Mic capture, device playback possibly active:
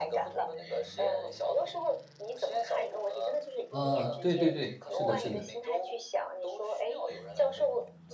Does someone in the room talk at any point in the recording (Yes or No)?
Yes